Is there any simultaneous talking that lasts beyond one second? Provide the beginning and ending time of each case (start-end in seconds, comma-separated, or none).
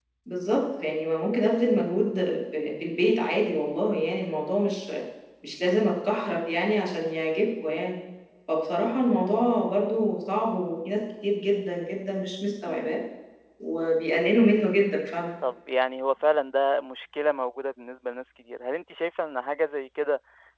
none